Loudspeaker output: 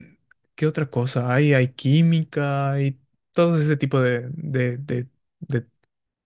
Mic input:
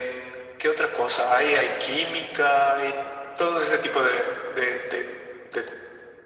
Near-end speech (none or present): none